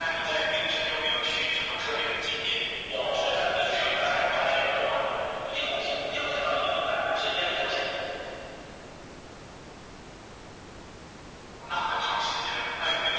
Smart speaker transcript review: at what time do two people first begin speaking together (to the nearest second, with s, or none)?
3 s